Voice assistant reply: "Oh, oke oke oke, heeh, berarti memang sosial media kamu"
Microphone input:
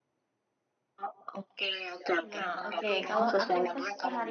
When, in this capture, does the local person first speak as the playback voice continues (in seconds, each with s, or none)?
2.2 s